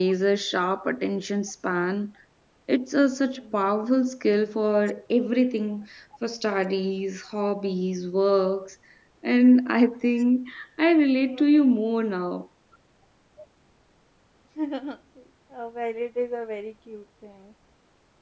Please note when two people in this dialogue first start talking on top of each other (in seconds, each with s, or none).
none